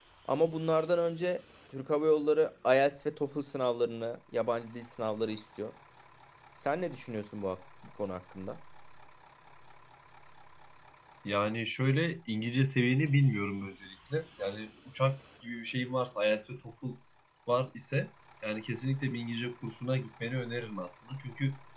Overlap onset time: none

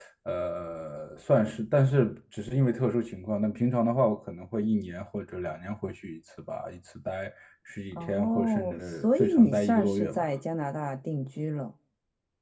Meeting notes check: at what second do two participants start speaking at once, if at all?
8 s

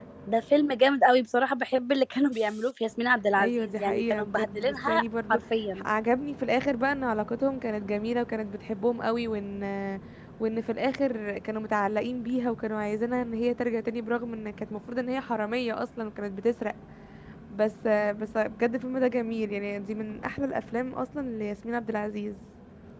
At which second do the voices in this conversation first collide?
3 s

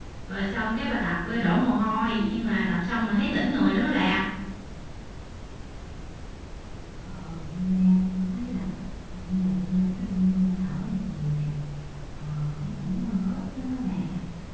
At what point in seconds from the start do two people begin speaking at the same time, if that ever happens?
none

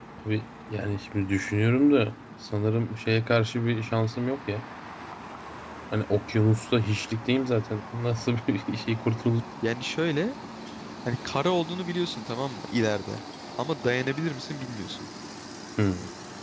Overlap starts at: none

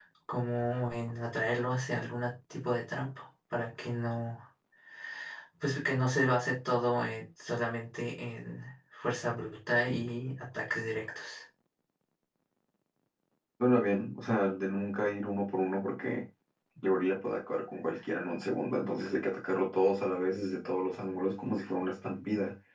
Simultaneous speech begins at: none

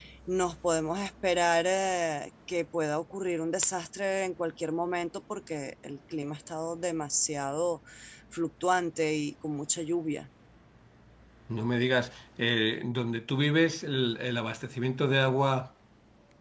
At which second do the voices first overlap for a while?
none

